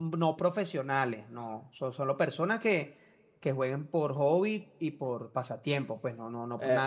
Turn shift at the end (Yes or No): No